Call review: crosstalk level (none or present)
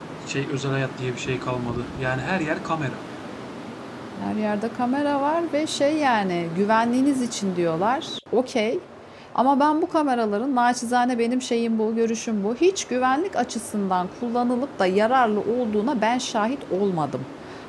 none